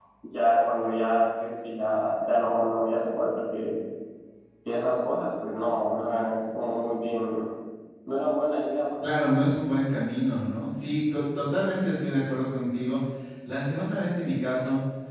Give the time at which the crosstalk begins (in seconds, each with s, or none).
none